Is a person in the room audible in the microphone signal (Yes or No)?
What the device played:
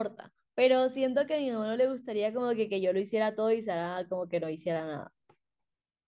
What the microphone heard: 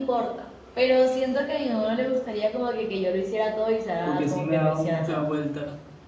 Yes